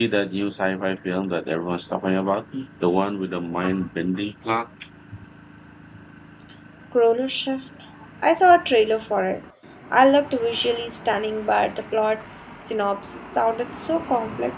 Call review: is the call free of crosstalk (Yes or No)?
Yes